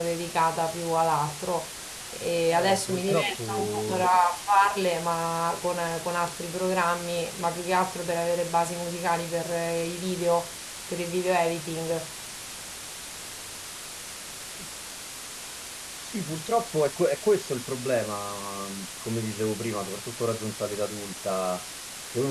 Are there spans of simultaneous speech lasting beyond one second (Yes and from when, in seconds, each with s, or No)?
Yes, from 2.5 s